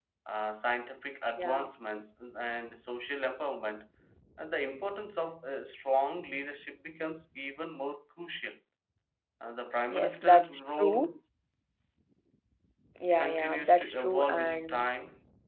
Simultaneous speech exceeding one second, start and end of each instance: 9.9-11.1, 13.2-14.9

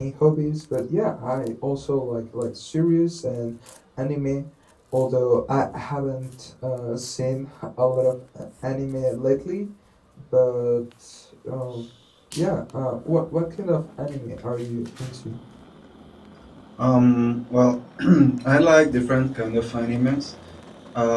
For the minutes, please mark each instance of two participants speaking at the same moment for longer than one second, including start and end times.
none

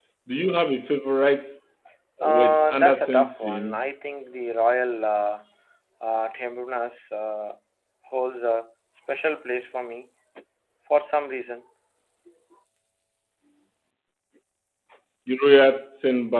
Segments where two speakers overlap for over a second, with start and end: 2.2-3.8

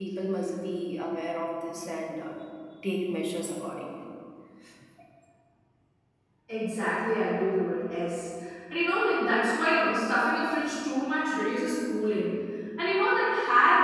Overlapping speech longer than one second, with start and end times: none

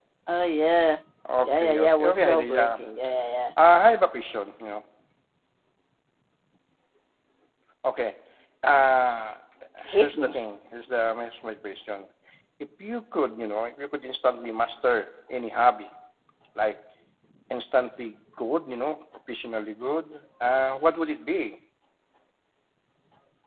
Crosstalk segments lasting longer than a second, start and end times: 1.4-2.8

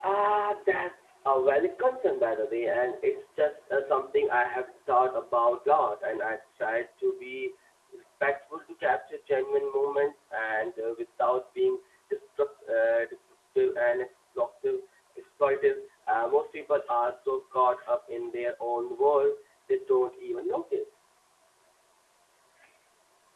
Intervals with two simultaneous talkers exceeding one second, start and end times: none

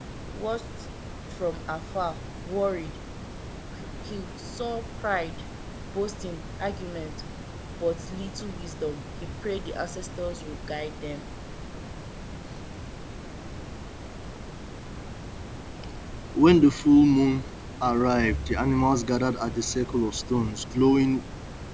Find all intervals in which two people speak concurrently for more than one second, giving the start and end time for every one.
none

